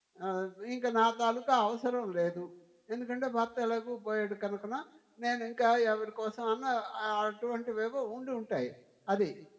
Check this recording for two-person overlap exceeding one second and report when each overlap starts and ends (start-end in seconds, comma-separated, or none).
none